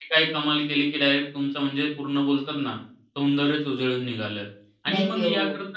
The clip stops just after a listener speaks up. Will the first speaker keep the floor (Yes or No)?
Yes